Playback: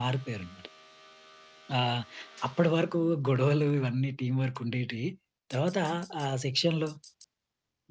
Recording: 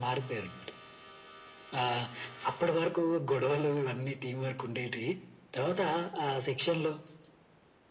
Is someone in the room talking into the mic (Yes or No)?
No